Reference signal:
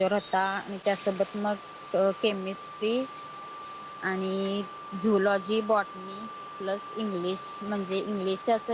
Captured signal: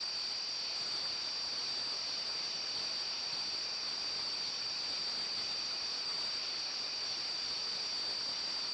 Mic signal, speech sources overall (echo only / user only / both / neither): neither